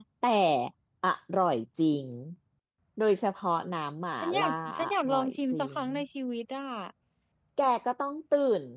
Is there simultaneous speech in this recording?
Yes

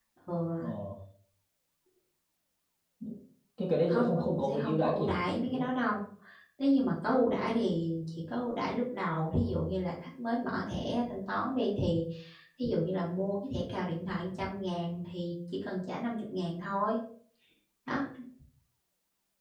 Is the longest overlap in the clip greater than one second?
Yes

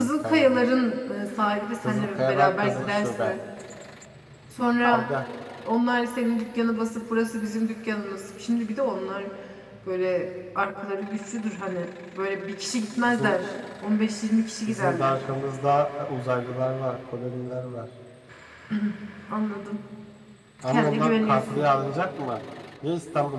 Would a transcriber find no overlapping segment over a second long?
No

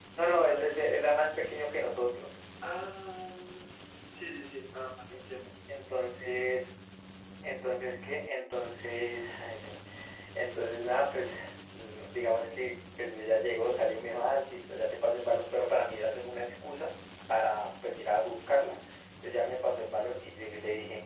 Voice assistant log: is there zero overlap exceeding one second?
Yes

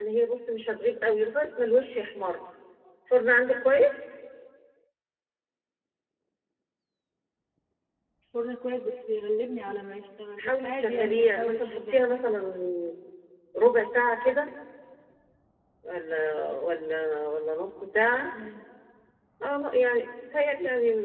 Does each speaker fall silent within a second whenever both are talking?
No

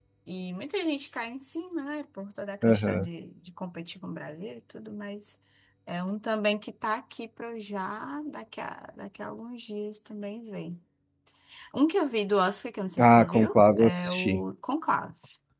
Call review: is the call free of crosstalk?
No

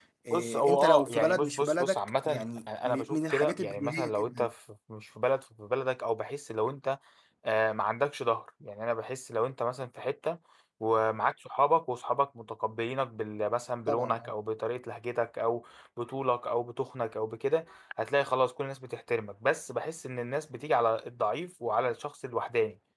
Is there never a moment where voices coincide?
No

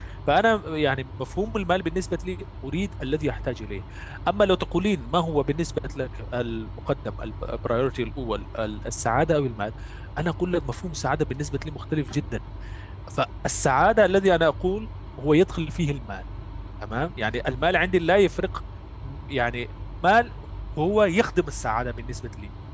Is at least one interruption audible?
No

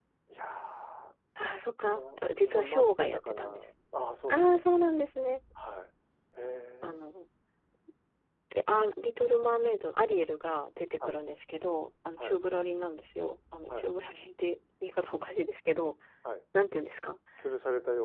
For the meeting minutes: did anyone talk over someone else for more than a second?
Yes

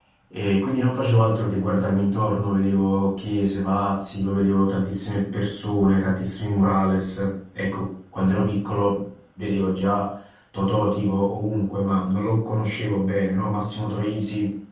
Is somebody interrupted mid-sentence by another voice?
No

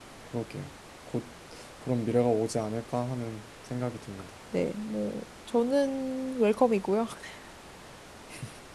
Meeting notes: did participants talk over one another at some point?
No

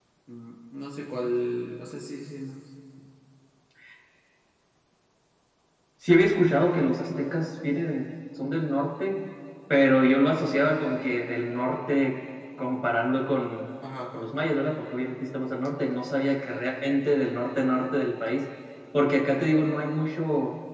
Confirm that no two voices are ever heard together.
Yes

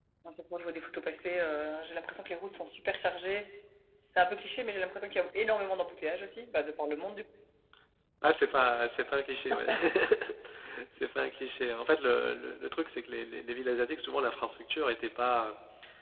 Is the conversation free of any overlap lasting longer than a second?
Yes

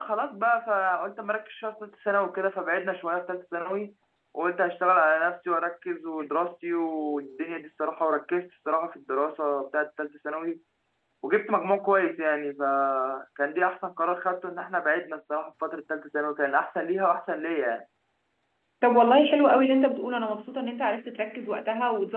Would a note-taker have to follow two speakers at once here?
No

